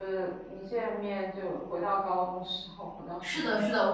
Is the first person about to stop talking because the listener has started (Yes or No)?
Yes